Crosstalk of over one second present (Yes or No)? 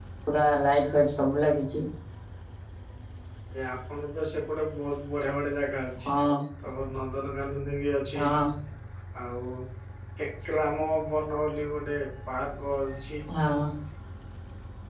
No